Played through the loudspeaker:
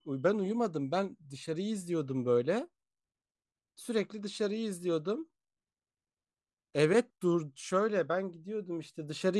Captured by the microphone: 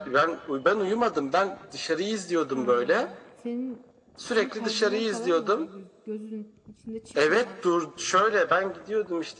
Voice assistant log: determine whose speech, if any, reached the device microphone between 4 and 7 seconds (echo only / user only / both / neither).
both